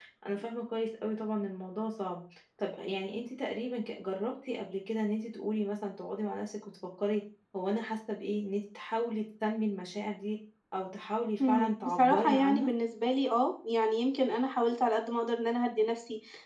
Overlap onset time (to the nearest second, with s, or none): 11 s